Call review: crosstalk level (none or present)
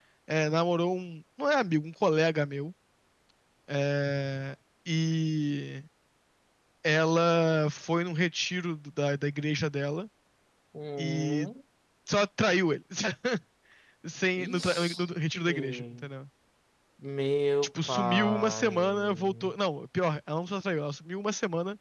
present